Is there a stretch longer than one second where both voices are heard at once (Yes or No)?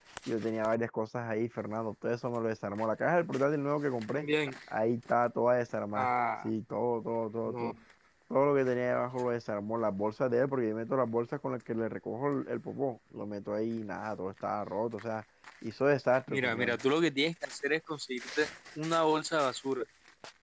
No